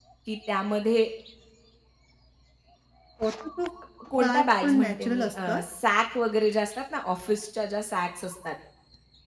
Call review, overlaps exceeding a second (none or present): present